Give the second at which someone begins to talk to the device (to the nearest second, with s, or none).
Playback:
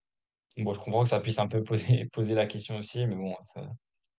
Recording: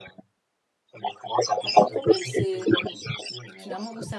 2 s